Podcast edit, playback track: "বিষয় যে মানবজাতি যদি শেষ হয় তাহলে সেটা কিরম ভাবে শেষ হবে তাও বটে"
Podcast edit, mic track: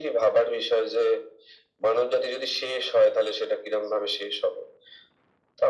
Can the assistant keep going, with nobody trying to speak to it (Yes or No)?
Yes